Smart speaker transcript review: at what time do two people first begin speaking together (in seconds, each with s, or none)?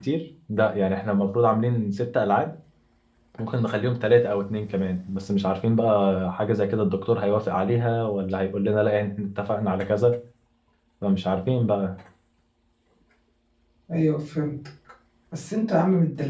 none